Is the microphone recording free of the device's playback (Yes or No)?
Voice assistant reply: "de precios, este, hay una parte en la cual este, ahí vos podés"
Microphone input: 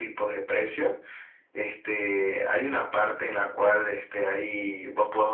No